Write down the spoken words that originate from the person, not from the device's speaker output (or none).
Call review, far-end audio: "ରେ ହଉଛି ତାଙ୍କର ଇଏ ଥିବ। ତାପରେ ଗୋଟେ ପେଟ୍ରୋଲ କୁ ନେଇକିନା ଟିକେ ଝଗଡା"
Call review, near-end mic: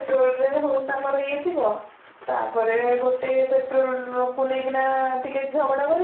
none